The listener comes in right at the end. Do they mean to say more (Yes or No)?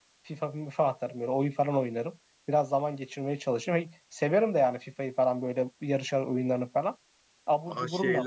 Yes